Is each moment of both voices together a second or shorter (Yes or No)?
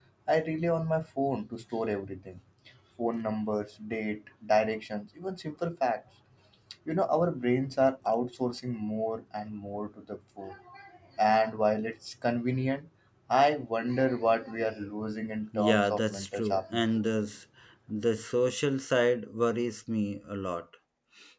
No